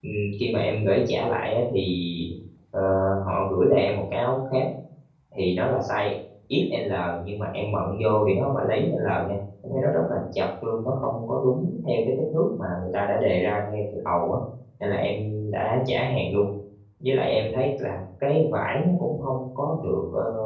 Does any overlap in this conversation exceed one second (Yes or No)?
No